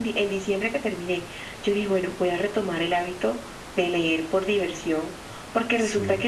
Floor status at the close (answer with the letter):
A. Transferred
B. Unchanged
B